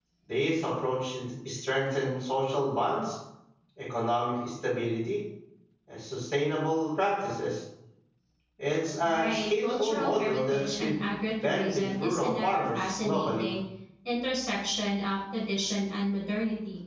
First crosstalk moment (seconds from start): 9.0 s

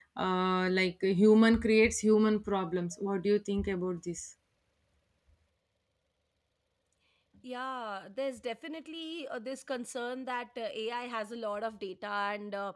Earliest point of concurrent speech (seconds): none

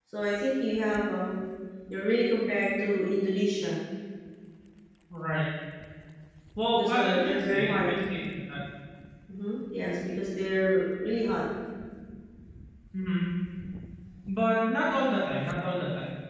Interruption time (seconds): 6.7 s

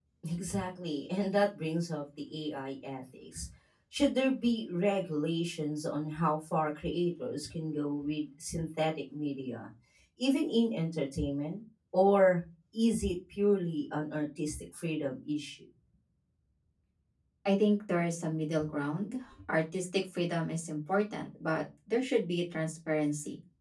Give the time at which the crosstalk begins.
none

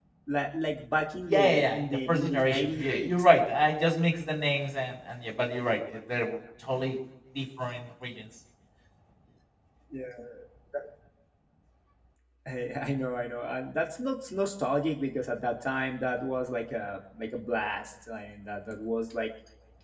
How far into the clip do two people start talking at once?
1.3 s

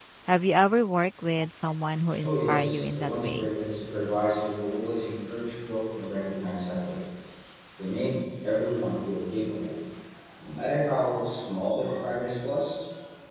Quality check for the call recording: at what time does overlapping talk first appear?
2.2 s

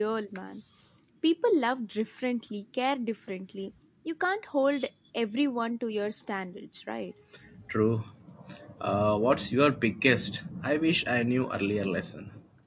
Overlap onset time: none

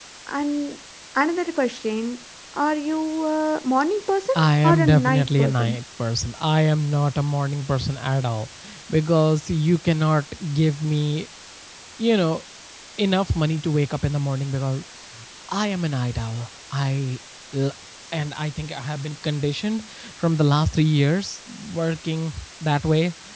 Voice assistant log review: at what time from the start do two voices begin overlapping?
4.3 s

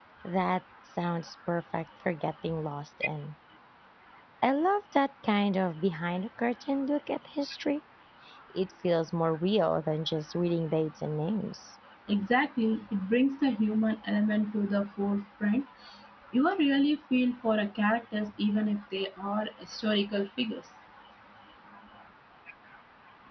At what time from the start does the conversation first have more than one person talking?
none

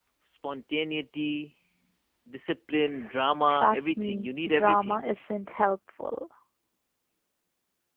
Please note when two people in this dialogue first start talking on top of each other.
3.5 s

